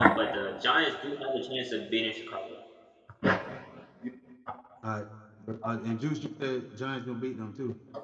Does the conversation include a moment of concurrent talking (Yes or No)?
No